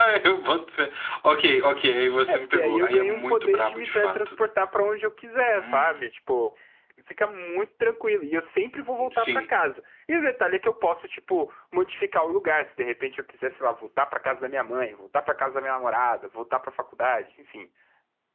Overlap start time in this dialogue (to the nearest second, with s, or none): 2 s